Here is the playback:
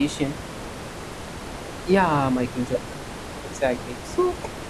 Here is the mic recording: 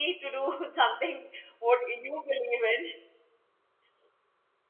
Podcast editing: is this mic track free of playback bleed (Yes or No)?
Yes